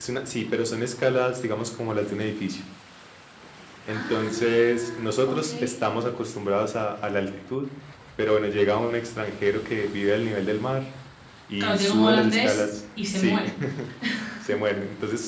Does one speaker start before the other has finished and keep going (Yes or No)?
Yes